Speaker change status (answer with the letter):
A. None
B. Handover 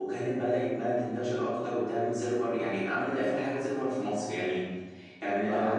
A